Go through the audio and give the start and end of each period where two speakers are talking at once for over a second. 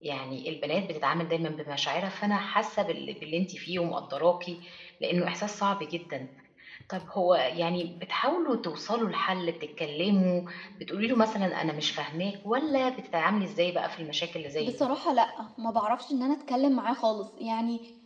none

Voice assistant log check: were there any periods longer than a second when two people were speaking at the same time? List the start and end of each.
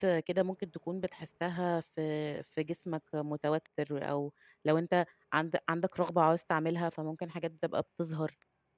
none

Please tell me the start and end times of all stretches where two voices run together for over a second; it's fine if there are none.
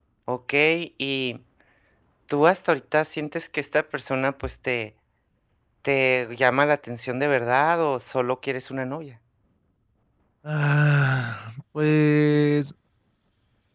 none

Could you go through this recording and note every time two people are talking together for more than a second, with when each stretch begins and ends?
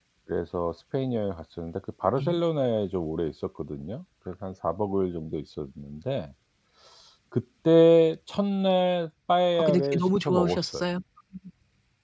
9.6-10.8

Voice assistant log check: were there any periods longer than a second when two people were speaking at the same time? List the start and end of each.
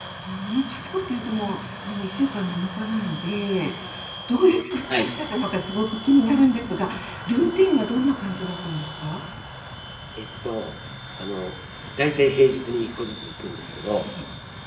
none

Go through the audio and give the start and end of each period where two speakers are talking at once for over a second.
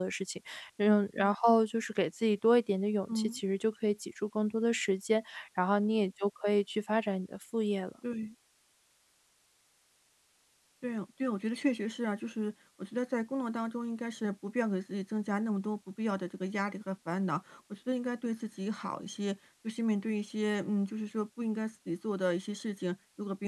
none

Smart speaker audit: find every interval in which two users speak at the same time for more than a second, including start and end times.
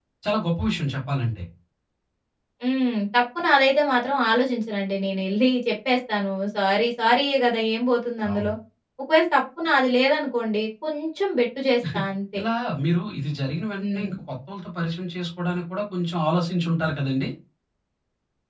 none

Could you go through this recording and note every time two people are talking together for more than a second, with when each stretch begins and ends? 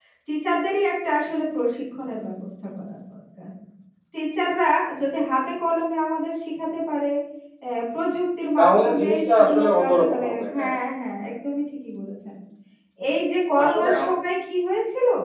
8.6-10.8

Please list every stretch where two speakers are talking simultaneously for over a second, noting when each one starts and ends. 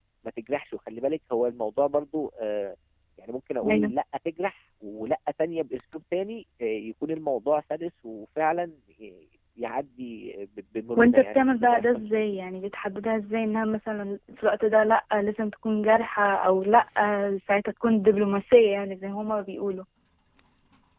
11.0-12.2

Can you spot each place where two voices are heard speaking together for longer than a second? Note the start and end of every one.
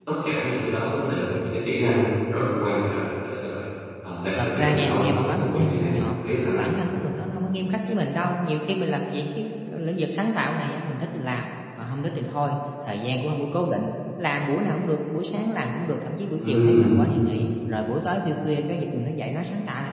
4.4-6.2

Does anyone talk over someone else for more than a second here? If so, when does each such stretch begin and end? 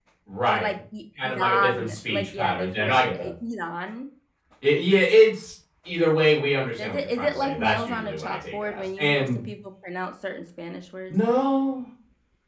1.2-3.3, 6.8-9.4

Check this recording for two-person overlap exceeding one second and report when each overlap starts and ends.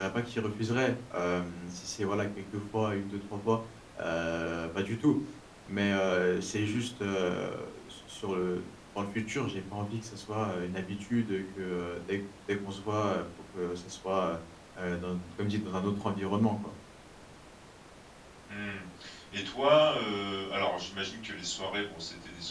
none

